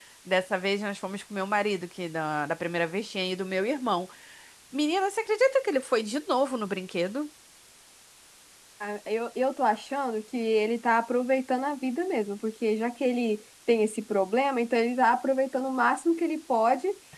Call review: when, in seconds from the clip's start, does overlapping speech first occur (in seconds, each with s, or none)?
none